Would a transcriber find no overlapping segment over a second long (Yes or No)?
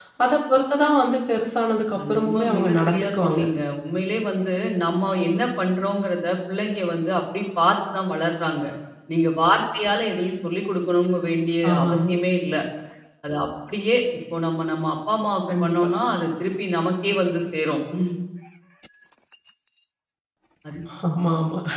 No